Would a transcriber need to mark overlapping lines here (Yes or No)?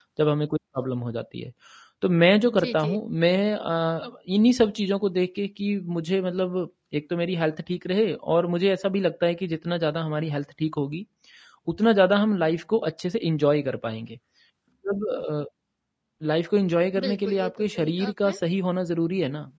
Yes